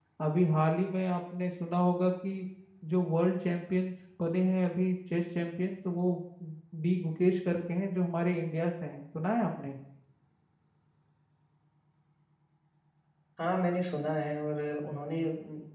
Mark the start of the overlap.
none

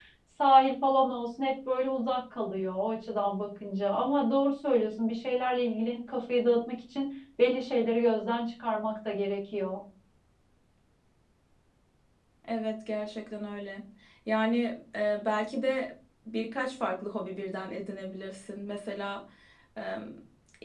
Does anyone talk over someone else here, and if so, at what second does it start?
none

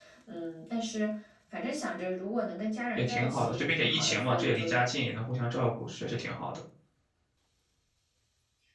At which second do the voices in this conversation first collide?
3.0 s

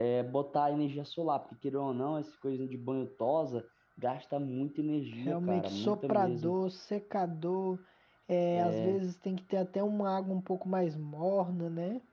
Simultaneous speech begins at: 5.2 s

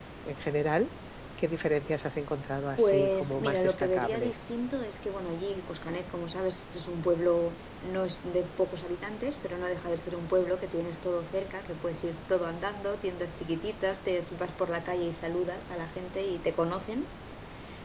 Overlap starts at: 2.8 s

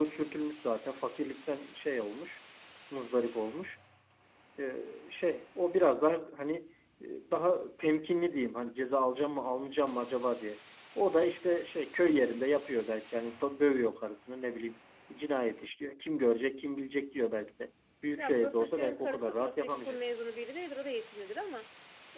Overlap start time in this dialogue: 18.2 s

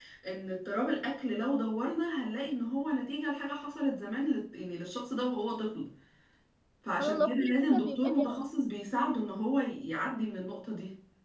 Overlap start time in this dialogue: 7.0 s

